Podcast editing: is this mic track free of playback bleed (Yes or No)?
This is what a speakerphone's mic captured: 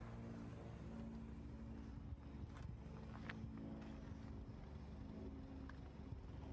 Yes